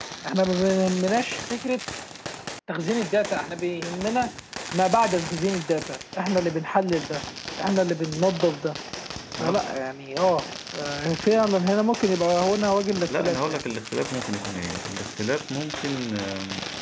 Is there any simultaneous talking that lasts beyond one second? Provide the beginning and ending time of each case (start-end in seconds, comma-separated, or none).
none